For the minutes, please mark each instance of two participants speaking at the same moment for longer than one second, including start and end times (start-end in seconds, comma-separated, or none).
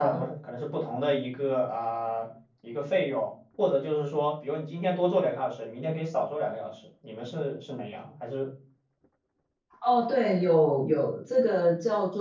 none